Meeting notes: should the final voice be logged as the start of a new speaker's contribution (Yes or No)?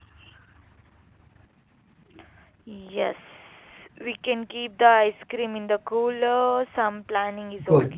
Yes